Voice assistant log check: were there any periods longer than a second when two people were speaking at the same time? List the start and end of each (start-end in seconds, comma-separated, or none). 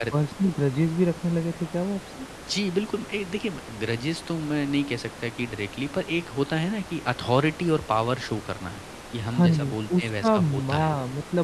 9.4-10.9